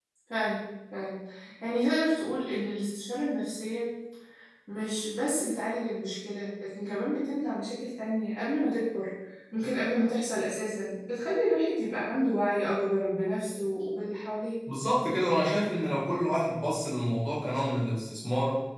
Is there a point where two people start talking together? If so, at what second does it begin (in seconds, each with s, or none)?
none